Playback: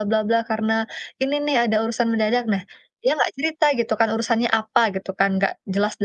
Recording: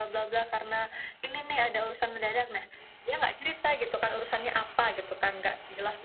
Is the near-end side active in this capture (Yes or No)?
No